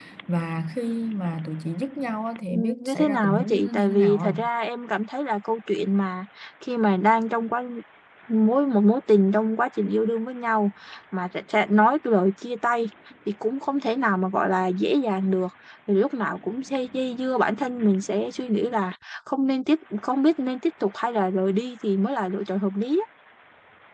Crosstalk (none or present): present